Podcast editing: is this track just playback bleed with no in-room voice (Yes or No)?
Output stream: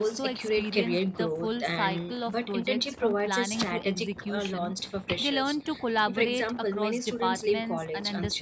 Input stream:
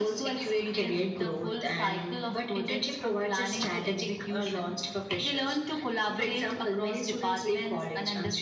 Yes